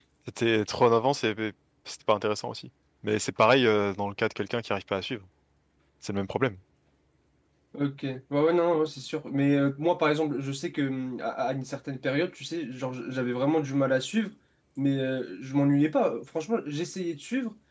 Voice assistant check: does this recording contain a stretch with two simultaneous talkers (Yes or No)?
No